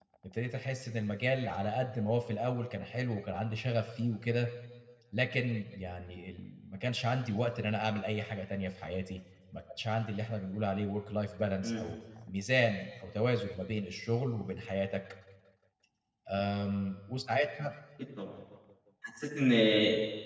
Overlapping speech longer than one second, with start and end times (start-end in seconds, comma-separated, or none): none